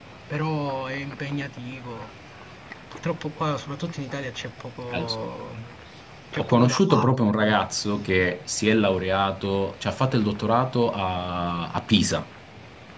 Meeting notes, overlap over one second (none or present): present